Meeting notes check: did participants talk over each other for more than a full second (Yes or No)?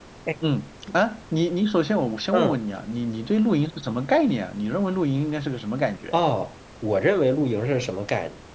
No